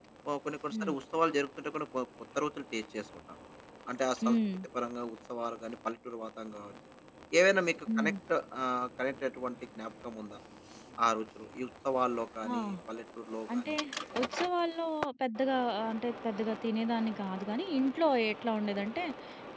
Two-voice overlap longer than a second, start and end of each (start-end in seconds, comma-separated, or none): none